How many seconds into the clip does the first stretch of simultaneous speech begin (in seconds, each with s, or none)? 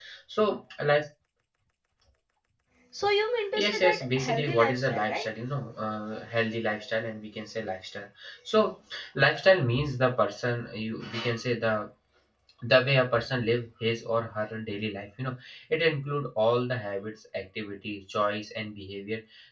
3.5 s